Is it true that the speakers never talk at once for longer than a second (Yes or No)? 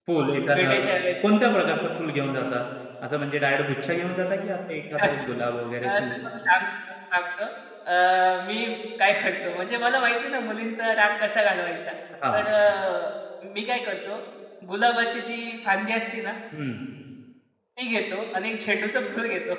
Yes